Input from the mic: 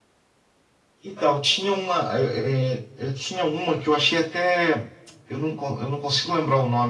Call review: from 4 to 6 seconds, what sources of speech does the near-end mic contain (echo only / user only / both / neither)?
echo only